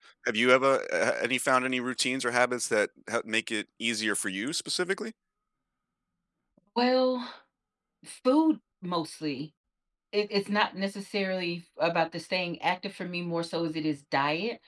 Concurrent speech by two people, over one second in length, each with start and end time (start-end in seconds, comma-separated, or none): none